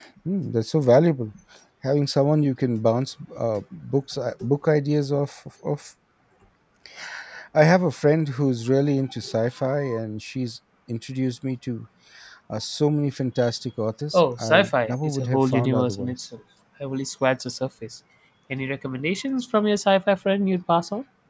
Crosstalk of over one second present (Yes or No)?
Yes